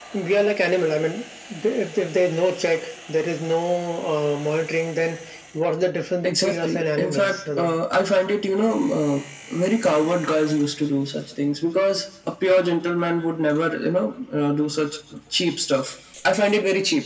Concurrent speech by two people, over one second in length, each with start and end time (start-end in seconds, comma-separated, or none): 6.2-7.8